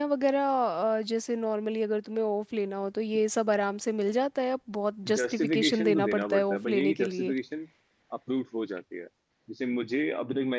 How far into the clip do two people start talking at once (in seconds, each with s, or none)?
5.0 s